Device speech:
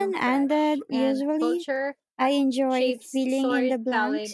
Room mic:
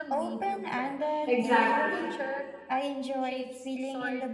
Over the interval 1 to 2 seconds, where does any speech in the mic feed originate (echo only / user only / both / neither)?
both